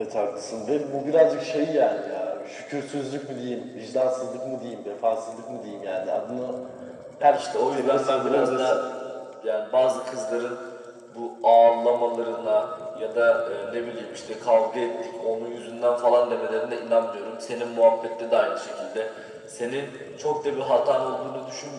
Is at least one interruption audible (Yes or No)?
Yes